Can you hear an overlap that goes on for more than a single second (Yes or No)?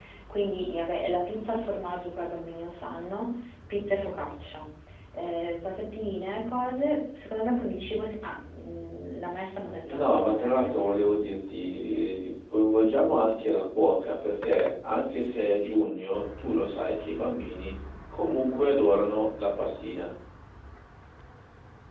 Yes